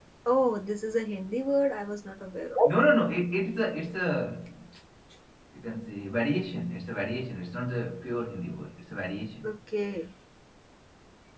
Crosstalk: none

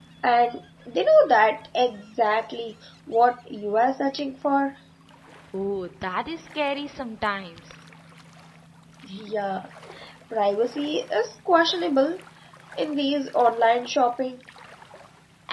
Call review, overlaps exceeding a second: none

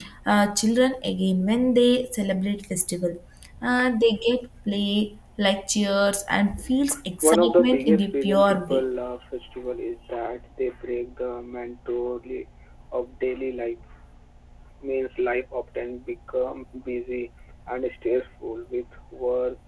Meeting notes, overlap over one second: present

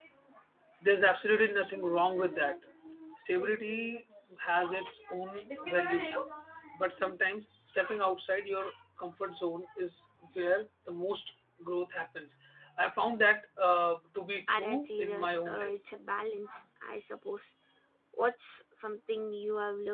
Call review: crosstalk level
present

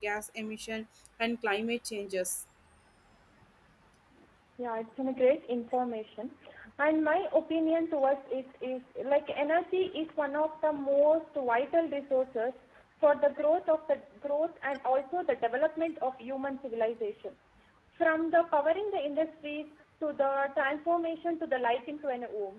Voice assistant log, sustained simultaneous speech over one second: none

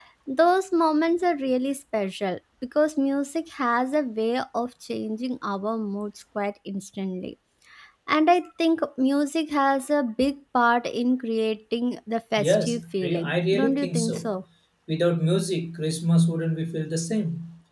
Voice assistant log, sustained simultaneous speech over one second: present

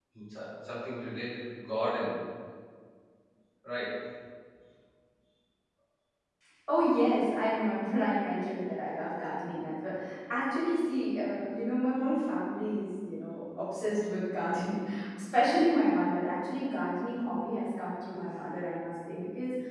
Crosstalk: none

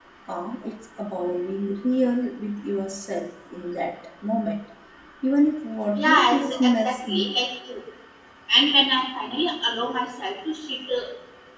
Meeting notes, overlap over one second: present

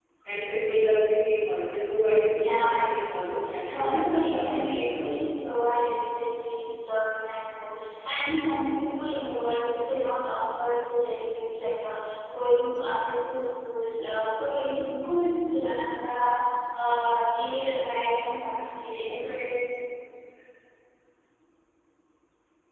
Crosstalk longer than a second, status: present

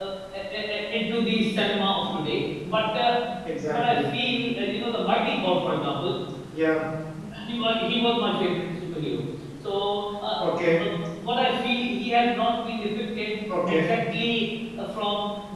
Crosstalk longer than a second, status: none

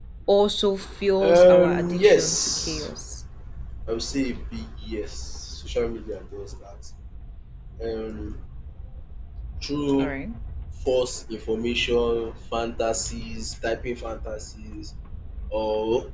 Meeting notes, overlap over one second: present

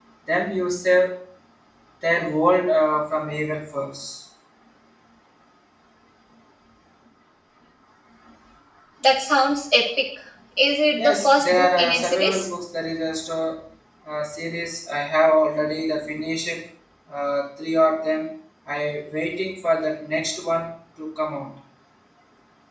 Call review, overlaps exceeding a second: present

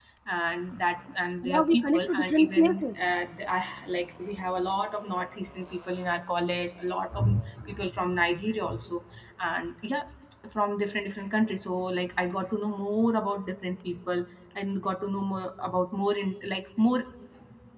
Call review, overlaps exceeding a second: present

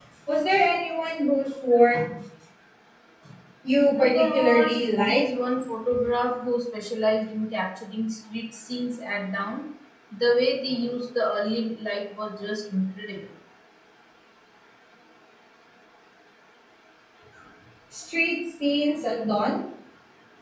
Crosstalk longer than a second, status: present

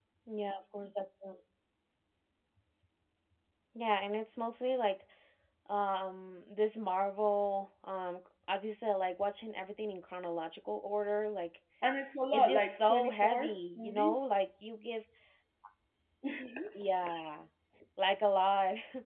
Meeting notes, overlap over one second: present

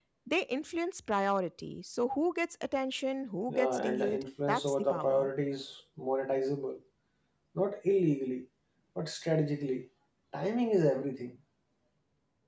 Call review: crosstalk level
present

